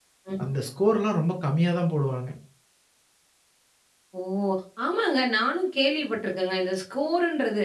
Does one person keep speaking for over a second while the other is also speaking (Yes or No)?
No